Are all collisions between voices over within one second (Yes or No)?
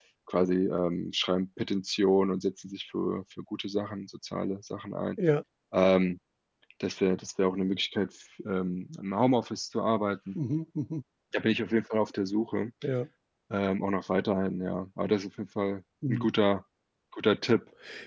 Yes